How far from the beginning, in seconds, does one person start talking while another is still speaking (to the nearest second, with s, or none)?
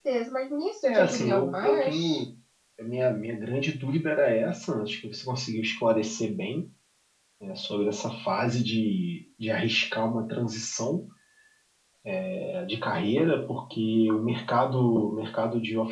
1 s